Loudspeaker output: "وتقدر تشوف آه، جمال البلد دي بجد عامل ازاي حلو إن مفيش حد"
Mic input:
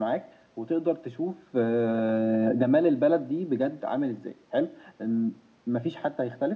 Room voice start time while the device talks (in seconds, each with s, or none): none